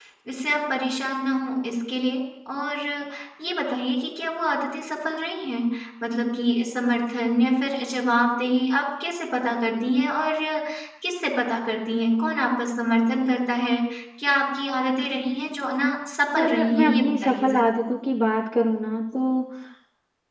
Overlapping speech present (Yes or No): Yes